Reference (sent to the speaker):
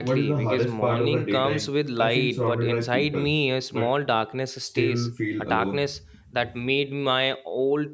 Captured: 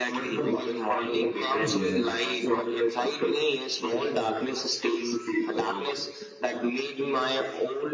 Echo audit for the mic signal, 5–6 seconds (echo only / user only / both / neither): echo only